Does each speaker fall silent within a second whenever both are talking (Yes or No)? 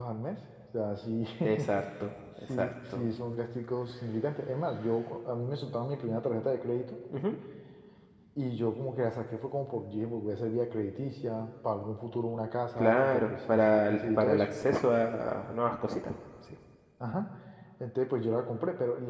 No